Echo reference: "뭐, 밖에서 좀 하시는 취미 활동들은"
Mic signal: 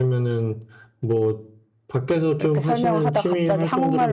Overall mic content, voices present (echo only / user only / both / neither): both